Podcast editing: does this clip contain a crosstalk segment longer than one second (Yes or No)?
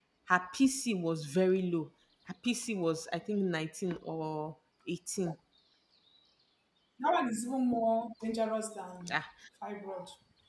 No